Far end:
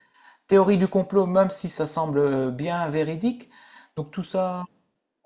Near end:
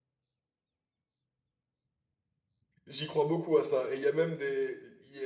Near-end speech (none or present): present